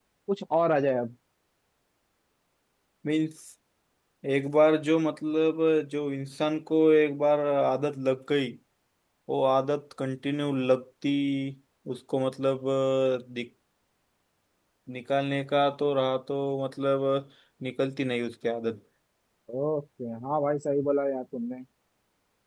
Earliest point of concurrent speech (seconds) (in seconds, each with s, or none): none